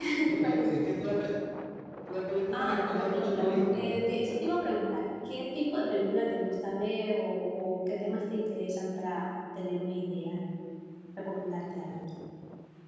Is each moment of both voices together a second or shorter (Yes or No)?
No